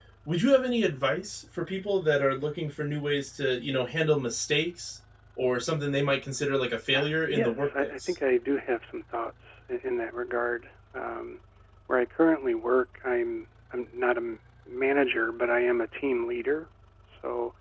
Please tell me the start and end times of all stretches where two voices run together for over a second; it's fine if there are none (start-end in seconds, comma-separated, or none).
6.9-8.1